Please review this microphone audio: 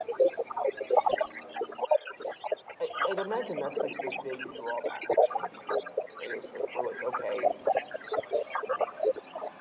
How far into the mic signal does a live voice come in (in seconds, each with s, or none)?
2.8 s